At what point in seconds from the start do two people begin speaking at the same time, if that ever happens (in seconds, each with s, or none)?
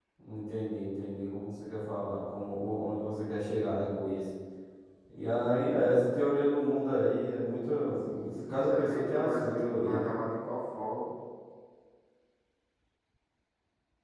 8.1 s